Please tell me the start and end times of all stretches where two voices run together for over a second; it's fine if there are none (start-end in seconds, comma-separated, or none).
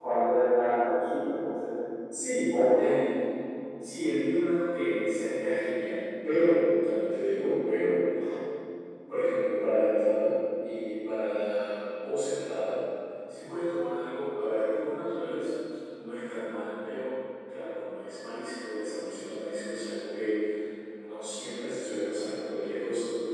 none